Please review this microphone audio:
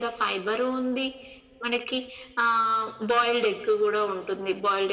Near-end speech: none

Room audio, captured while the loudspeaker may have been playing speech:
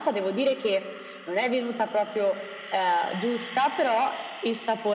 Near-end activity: none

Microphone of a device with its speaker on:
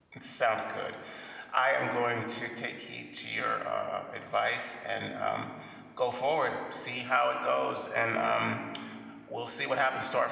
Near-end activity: present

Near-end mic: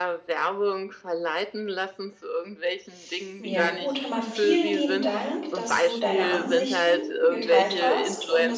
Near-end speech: present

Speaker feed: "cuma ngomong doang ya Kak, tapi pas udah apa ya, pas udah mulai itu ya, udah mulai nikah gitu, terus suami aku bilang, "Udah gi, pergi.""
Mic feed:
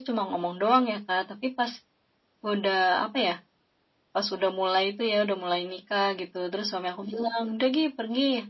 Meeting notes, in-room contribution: none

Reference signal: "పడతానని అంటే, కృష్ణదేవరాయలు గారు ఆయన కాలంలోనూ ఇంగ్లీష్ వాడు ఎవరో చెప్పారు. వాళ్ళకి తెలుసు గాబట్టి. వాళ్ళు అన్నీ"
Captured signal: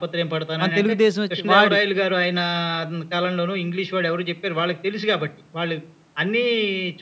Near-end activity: present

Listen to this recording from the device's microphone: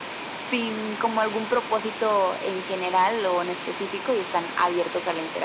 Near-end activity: none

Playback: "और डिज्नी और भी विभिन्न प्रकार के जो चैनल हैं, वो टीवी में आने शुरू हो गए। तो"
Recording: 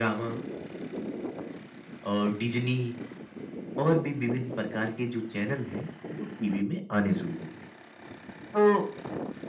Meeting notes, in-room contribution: none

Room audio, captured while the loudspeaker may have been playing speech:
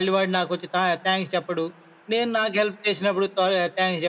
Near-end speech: none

